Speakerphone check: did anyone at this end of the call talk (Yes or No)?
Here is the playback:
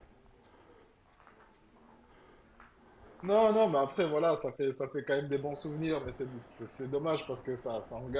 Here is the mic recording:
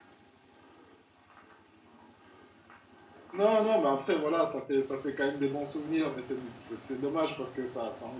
No